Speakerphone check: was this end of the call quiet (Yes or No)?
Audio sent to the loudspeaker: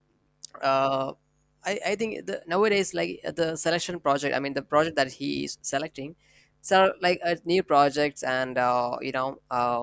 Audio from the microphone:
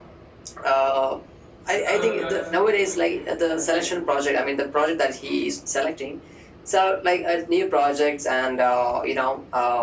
No